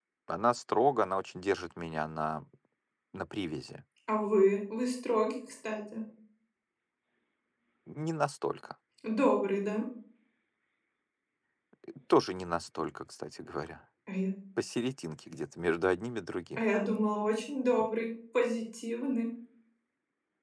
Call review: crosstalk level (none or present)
none